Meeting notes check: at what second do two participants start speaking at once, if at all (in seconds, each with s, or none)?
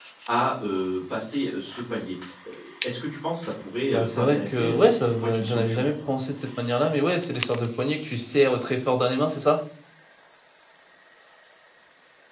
3.9 s